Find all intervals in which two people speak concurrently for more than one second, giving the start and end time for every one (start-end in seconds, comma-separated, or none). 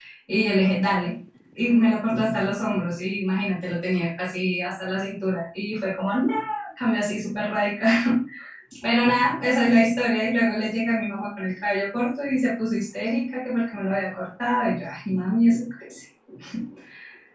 none